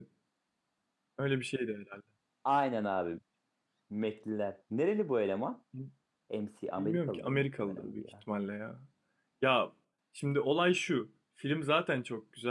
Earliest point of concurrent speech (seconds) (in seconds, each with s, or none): 6.8 s